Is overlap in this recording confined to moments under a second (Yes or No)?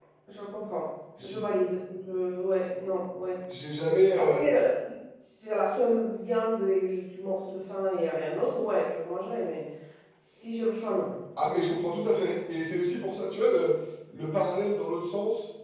Yes